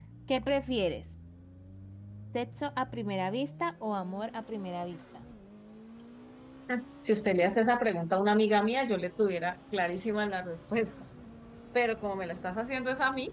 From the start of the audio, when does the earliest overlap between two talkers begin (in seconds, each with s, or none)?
none